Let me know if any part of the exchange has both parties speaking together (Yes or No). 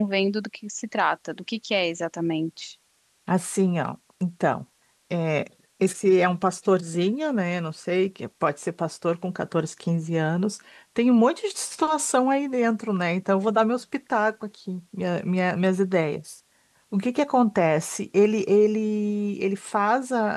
No